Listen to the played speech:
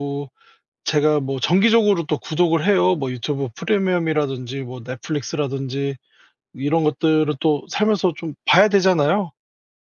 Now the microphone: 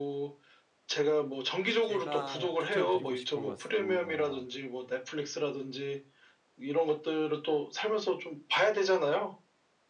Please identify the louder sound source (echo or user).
echo